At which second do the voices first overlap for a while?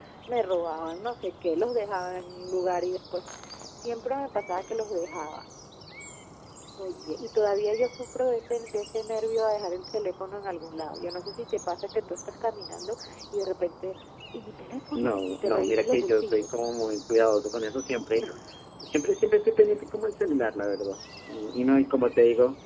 15.0 s

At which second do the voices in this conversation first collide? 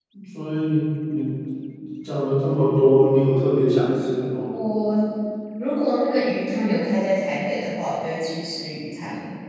none

